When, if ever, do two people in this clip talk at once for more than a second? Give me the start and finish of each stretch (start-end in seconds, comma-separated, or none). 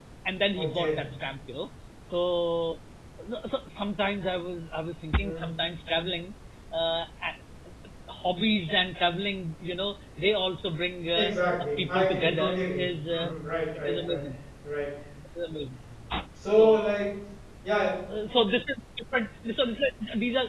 11.1-13.3